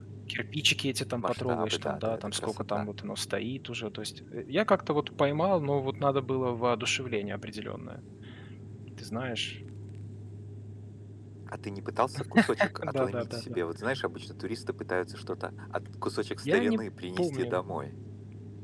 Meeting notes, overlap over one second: present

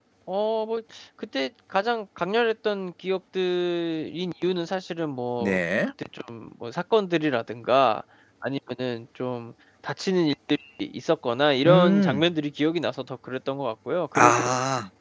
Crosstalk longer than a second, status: none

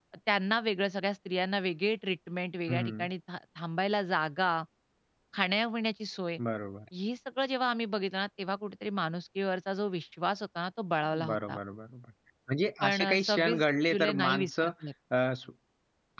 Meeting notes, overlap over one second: present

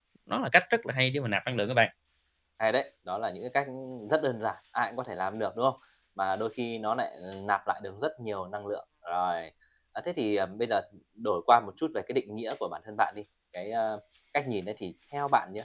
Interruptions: none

